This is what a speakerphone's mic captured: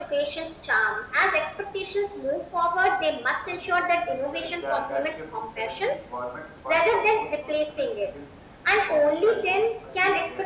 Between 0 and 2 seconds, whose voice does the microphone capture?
echo only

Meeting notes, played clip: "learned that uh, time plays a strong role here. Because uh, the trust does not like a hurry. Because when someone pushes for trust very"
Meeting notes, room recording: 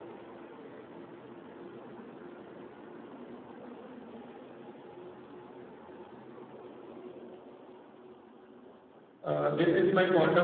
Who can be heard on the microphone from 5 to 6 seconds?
neither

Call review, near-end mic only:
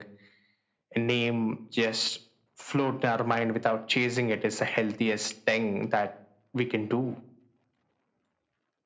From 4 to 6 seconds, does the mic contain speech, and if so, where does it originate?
echo only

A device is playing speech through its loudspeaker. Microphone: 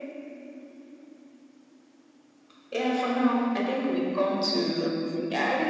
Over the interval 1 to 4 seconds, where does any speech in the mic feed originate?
echo only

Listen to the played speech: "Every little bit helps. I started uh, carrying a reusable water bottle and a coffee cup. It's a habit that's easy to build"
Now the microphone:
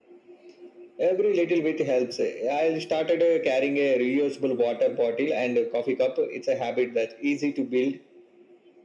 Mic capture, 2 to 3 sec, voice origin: echo only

